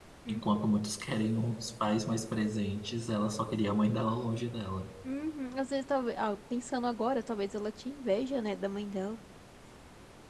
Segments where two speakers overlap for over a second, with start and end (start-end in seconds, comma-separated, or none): none